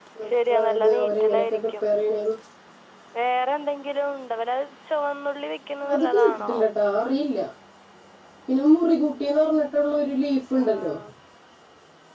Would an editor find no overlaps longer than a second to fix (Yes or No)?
No